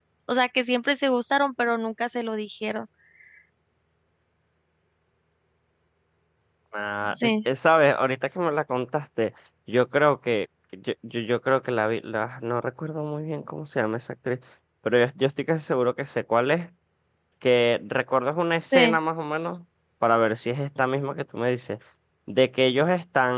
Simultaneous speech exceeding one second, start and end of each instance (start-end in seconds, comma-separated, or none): none